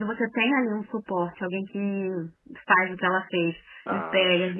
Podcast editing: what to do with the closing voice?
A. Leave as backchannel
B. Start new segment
A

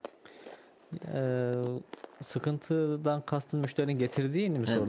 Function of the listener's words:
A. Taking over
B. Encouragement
A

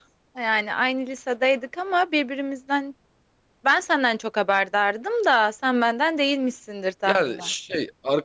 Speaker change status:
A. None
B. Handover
B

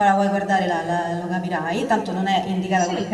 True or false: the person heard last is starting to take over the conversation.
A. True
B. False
B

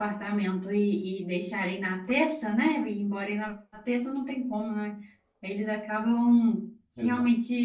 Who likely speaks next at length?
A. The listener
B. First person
B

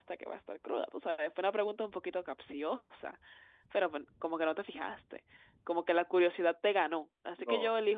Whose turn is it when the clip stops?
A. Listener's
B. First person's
B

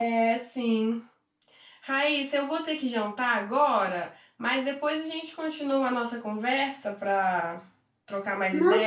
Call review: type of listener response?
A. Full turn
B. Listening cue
A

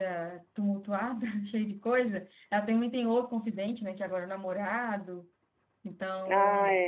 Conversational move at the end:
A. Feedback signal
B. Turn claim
A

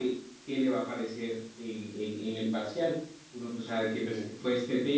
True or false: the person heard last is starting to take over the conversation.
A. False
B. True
A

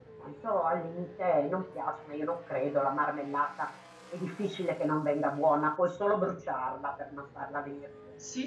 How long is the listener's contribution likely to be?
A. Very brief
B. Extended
B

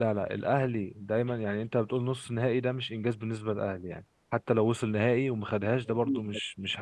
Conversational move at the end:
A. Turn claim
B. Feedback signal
A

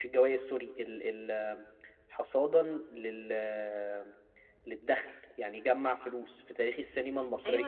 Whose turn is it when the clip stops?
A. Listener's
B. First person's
A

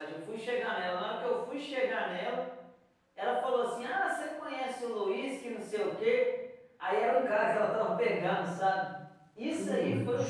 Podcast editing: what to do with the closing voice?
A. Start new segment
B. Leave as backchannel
B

